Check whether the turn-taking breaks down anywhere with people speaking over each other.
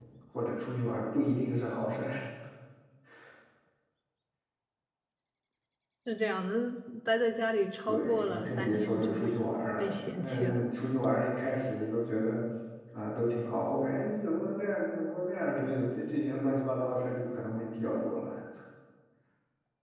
Yes, from 7.9 s

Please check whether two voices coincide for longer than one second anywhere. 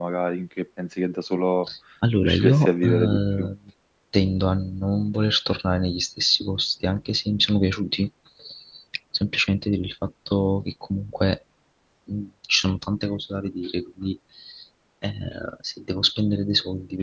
Yes, from 2.2 s

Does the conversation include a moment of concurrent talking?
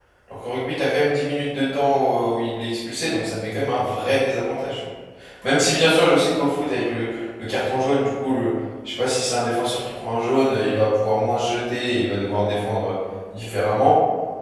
No

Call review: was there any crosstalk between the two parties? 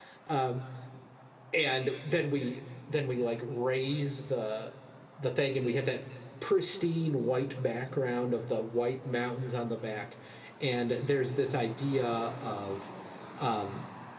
No

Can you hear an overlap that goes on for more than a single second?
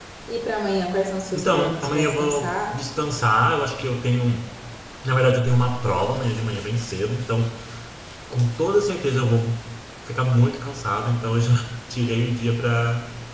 Yes, from 1.3 s

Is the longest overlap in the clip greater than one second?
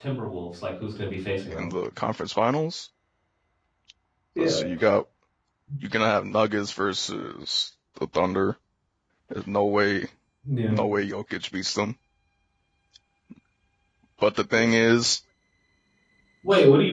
No

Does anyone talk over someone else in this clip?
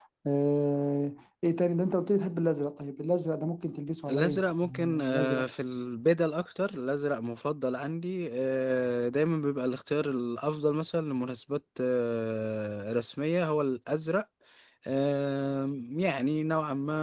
Yes, from 4.1 s

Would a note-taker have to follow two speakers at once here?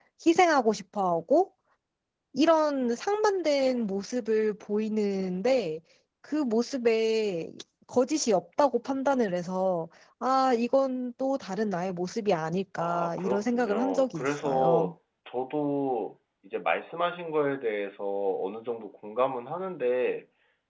Yes, from 12.8 s

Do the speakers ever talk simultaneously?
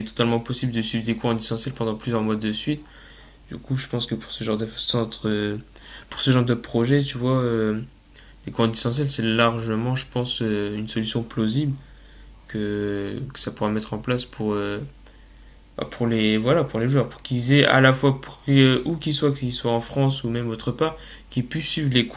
No

